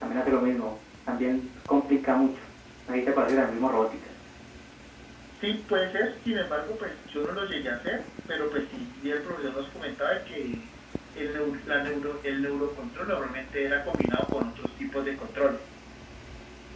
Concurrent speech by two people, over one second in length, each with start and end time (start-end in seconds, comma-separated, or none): none